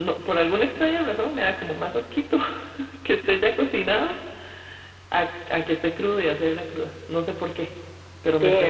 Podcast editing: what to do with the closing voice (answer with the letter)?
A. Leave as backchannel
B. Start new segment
A